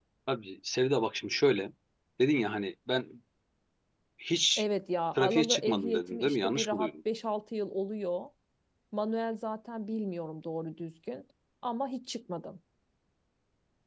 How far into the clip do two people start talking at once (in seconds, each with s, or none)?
5.2 s